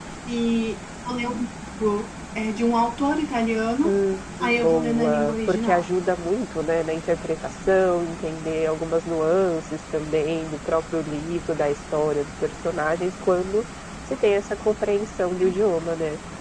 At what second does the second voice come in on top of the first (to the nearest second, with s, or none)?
4 s